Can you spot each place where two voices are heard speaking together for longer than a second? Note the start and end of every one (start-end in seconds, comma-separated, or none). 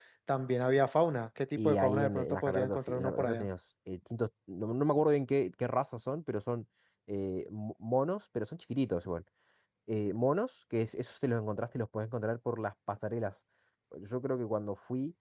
1.6-3.5